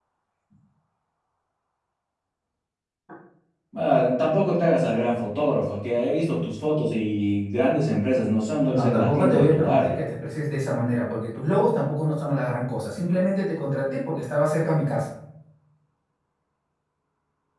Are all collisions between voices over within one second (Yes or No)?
No